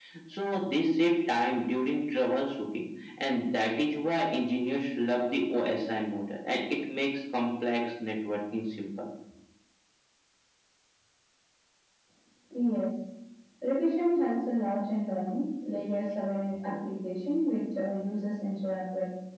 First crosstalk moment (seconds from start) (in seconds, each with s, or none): none